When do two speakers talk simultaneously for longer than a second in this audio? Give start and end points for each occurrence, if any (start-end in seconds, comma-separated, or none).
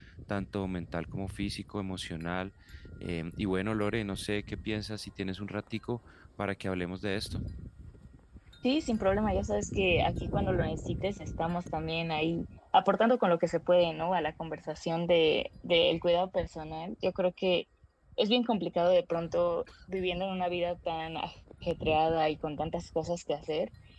none